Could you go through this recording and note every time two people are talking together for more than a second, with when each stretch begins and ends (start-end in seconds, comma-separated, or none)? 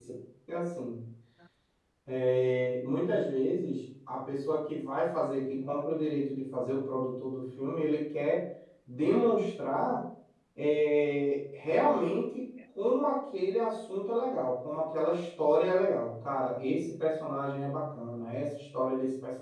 none